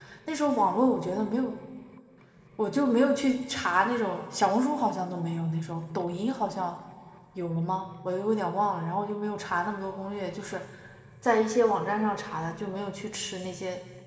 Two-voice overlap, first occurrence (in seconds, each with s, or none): none